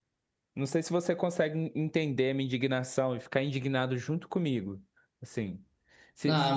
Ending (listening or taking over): taking over